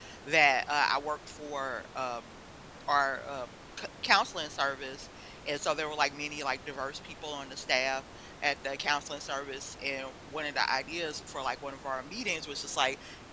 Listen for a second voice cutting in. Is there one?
No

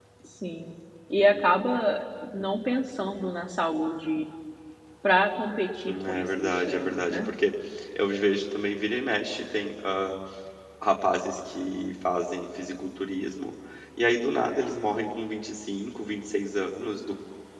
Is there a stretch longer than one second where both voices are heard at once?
Yes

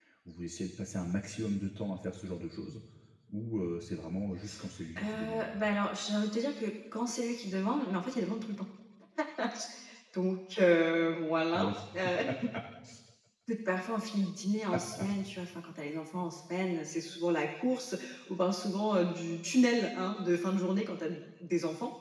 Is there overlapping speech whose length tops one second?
No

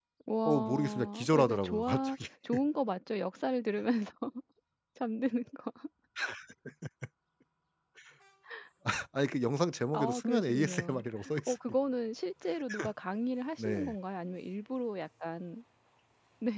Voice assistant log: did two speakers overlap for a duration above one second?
Yes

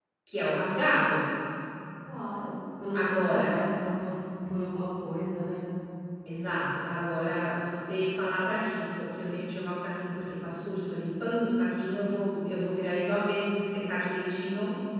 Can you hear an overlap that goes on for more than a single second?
No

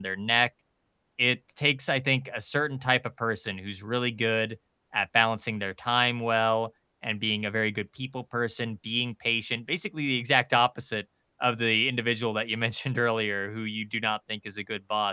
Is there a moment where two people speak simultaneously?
No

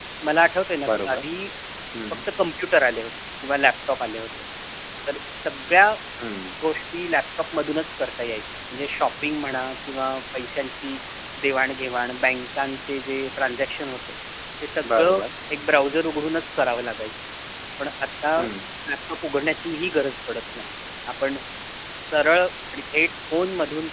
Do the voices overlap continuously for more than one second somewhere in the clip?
No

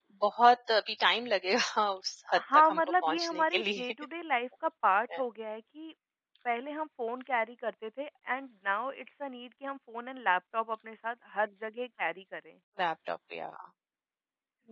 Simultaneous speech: Yes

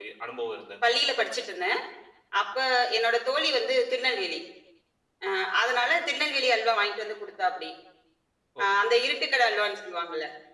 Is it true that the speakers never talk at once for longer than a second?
Yes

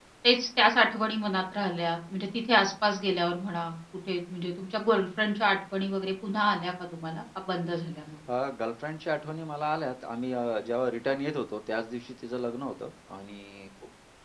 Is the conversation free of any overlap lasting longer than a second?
Yes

